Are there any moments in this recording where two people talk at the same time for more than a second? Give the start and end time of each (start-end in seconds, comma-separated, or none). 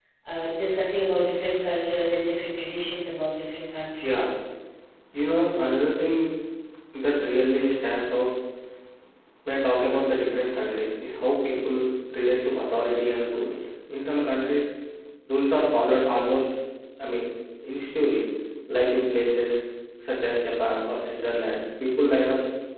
none